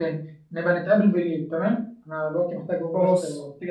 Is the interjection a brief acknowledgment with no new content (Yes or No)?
Yes